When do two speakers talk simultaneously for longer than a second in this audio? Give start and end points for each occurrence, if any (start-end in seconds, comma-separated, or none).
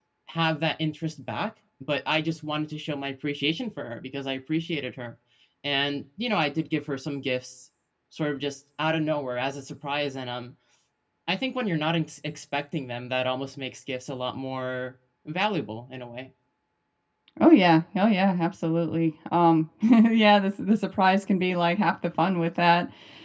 none